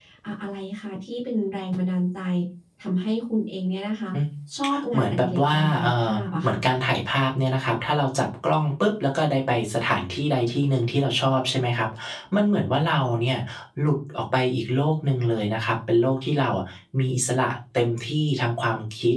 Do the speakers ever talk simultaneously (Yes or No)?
Yes